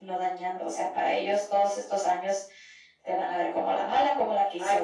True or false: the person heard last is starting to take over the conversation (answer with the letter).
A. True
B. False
B